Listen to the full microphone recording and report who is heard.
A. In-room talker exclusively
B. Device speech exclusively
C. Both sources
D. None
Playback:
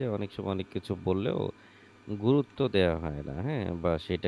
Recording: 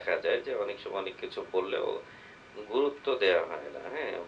B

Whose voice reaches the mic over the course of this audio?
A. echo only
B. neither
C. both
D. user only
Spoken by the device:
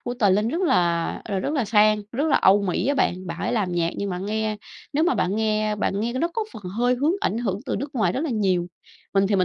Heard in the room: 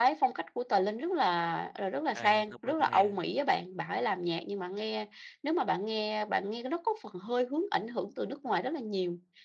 C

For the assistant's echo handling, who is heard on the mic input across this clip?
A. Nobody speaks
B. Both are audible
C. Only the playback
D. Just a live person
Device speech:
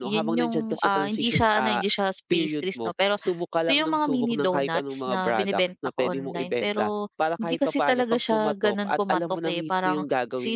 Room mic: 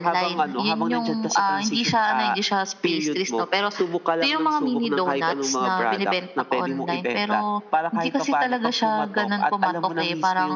C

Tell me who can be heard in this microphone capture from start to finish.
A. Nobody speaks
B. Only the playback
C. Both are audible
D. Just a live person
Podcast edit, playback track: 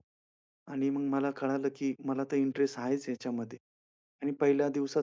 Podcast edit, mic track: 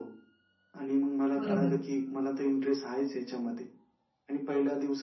C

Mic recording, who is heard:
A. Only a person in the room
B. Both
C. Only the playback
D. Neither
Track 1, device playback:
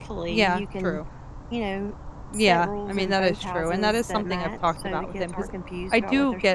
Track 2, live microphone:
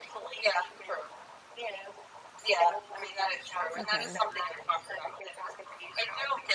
B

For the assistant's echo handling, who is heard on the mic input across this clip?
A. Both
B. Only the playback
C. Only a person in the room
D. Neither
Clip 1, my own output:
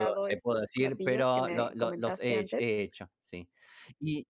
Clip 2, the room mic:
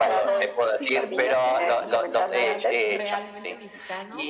A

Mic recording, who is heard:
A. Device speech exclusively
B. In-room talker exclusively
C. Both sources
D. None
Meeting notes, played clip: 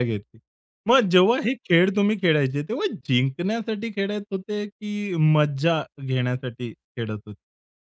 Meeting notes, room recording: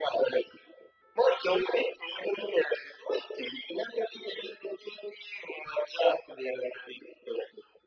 A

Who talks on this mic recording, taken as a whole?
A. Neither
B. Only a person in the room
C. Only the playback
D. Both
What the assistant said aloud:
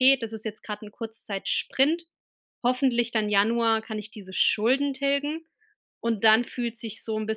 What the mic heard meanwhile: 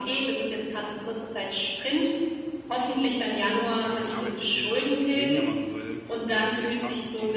D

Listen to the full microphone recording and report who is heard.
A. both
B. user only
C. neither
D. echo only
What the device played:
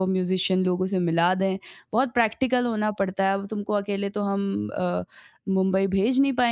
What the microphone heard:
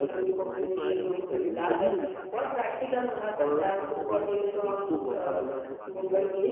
A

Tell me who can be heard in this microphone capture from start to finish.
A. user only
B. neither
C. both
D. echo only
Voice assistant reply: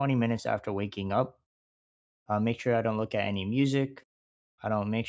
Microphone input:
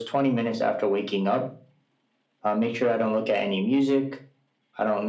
D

